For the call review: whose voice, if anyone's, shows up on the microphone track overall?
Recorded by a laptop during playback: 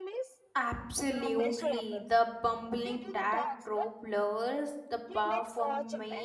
both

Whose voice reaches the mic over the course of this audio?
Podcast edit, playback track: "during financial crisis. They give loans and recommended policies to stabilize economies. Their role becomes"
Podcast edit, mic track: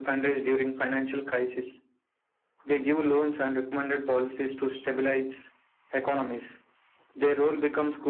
echo only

